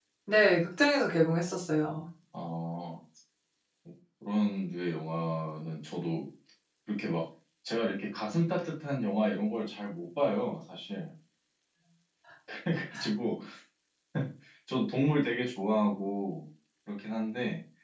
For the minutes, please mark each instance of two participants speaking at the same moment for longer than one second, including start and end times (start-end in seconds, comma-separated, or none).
none